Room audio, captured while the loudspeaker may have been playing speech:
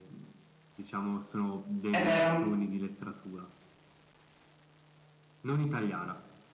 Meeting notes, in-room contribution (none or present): present